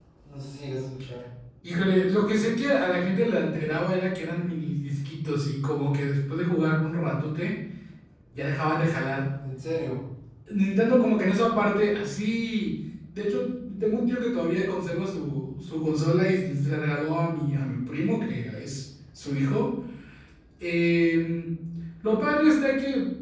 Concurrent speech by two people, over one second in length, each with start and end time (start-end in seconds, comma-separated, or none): none